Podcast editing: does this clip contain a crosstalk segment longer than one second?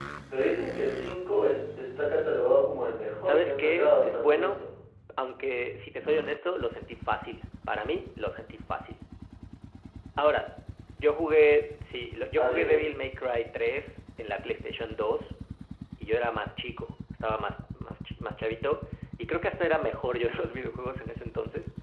Yes, from 3.2 s

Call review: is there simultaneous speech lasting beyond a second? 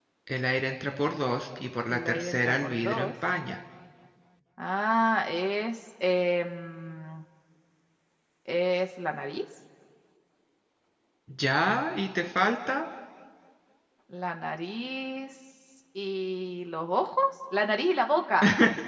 Yes, from 1.9 s

